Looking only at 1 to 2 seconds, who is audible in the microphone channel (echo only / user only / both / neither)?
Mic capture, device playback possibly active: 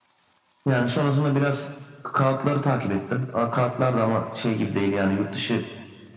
echo only